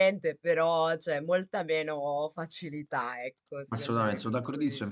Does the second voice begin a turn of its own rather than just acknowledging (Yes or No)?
Yes